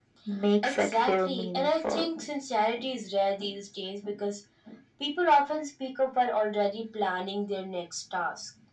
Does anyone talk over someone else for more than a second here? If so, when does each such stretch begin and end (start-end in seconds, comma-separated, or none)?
0.6-2.1